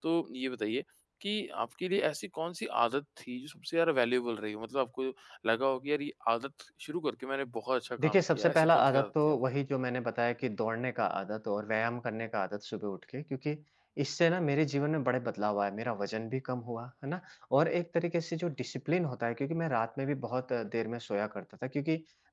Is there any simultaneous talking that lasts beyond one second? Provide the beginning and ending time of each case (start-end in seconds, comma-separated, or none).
8.0-9.3